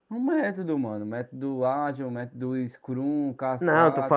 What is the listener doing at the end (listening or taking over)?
taking over